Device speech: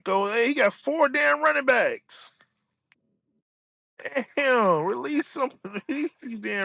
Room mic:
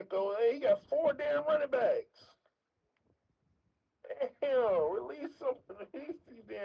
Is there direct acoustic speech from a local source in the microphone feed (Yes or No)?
No